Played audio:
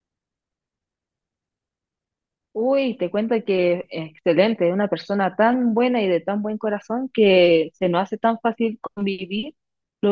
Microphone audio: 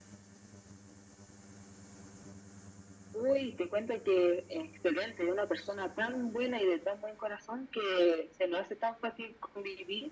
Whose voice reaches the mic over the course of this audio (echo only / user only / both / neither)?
echo only